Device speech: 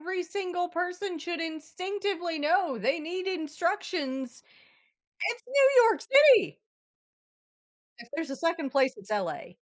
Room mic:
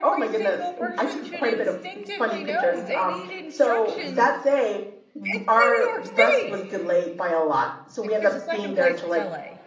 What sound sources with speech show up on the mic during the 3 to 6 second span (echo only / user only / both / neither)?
both